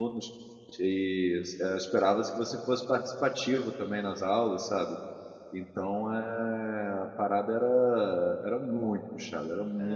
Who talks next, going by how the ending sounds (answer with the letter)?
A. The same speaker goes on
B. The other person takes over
A